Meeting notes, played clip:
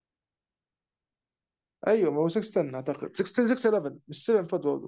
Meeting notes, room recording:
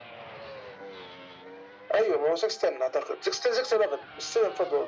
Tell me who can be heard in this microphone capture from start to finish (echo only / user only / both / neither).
echo only